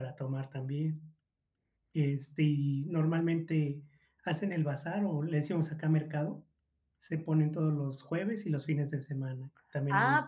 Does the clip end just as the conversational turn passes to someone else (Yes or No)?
Yes